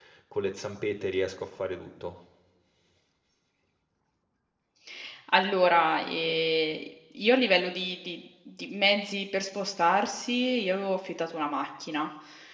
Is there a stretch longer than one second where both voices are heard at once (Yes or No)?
No